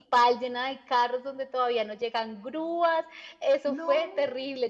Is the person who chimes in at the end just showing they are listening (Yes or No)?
Yes